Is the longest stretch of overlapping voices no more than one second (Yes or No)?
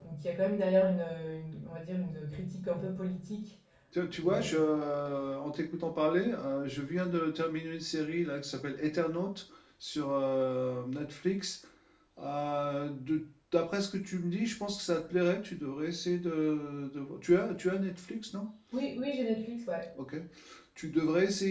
Yes